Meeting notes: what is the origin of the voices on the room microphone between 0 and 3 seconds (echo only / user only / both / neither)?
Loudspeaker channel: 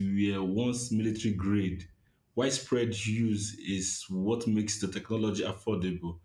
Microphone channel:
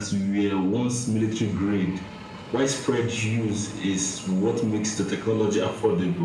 echo only